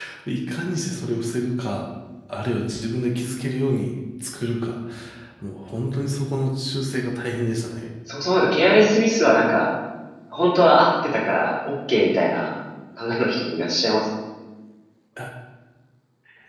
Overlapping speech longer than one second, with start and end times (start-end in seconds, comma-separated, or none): none